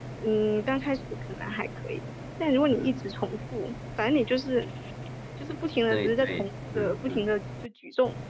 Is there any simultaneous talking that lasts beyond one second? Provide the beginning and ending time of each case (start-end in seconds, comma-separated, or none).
5.9-7.3